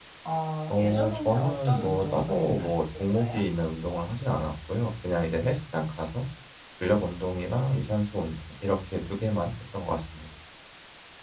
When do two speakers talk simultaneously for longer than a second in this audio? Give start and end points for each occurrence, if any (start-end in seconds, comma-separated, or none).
0.7-3.5